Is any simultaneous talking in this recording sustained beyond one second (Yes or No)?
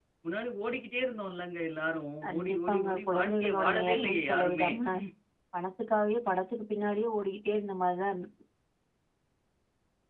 Yes